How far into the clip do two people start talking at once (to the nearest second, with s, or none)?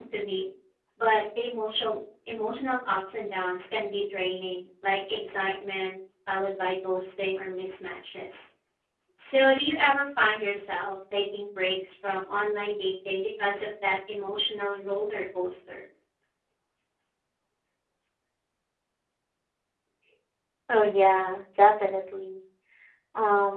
none